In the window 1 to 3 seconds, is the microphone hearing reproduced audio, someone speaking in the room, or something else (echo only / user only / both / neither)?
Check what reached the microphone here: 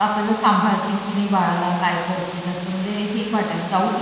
user only